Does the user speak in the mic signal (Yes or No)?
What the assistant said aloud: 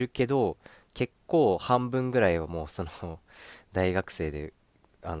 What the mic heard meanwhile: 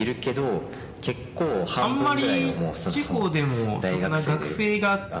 Yes